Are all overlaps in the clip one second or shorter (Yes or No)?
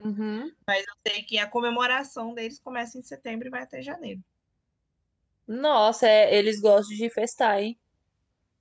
Yes